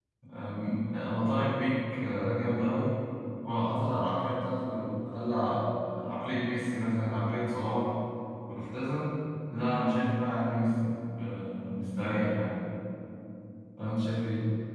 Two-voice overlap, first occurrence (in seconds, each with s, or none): none